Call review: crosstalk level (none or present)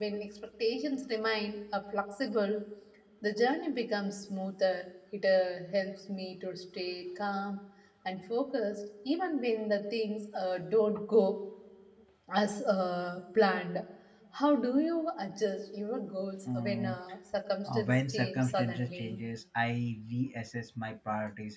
present